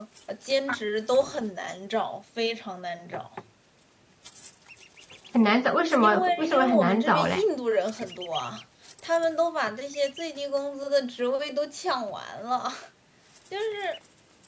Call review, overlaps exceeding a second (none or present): present